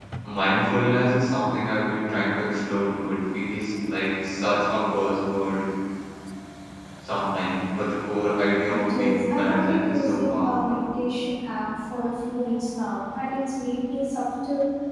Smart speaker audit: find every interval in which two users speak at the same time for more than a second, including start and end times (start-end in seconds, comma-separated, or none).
8.7-10.8